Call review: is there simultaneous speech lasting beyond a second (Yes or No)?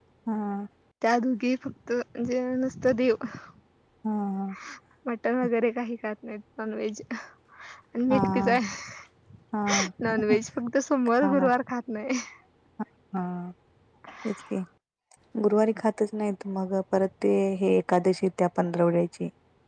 No